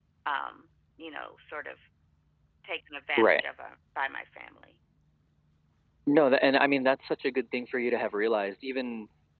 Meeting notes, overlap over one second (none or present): none